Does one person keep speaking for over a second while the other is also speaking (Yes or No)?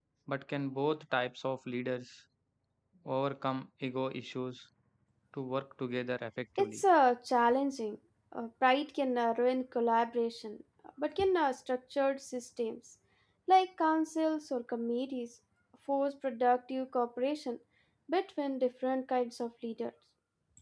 No